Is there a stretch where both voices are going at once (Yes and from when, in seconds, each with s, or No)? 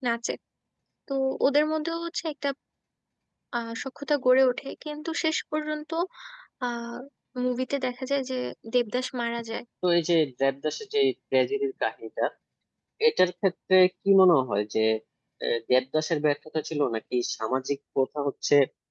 No